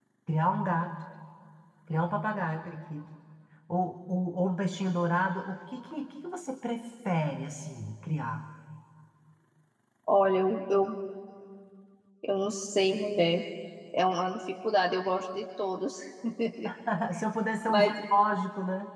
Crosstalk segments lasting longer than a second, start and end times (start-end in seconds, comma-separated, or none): none